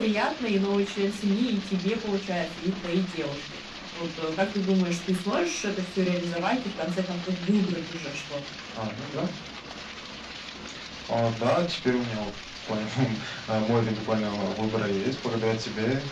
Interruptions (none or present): none